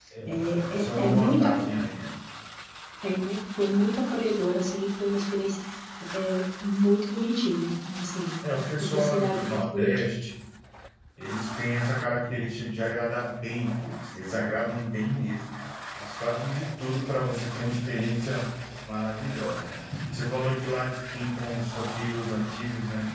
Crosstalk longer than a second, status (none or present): present